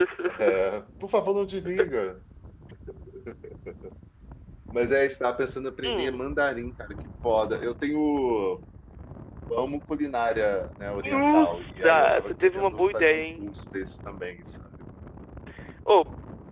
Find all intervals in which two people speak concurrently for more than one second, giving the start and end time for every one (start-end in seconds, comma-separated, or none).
11.0-13.4